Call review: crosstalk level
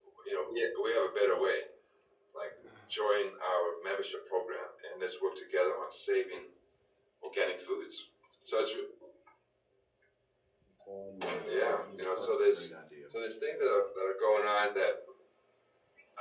present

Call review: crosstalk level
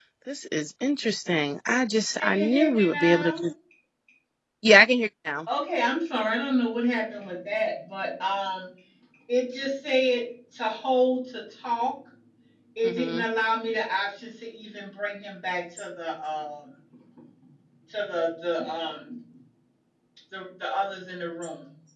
present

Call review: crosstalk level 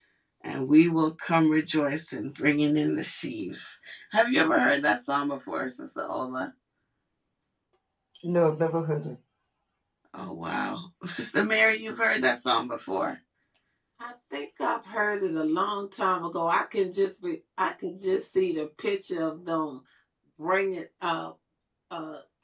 none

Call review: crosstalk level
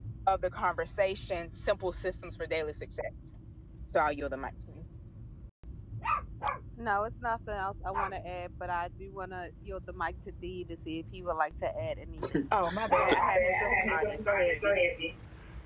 present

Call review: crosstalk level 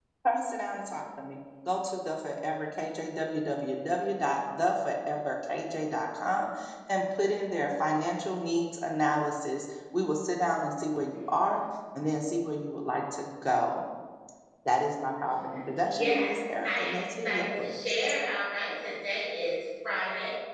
present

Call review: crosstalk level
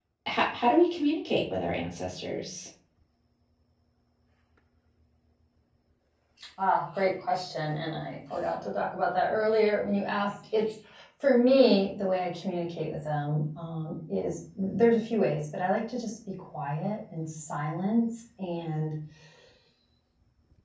none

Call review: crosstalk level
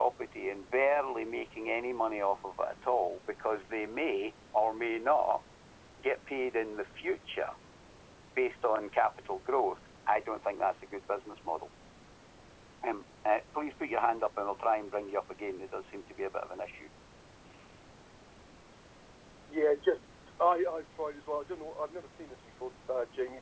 none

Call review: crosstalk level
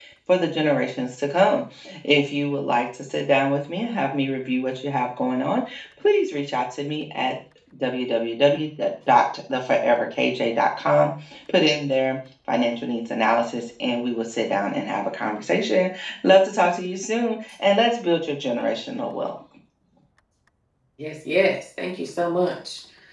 none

